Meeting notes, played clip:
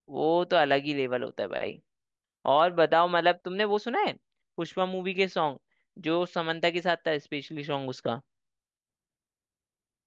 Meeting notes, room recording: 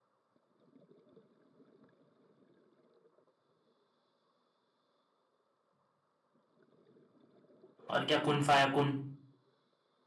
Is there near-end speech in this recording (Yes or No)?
Yes